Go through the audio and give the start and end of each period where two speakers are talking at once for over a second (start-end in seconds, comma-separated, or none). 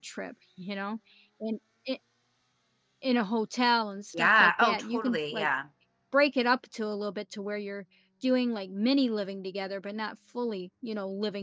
4.1-5.5